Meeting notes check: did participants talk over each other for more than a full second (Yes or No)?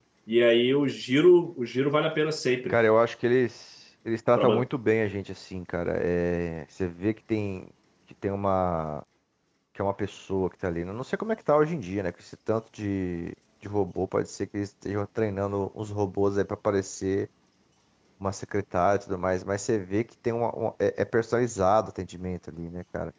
No